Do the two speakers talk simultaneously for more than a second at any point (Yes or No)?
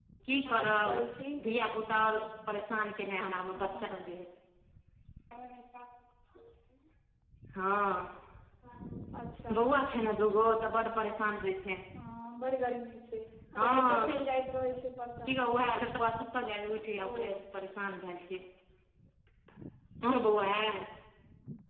No